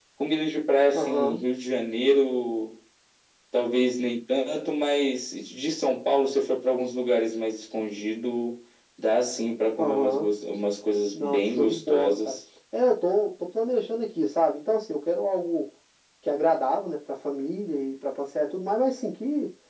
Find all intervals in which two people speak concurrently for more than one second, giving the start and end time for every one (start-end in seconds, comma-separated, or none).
11.1-12.4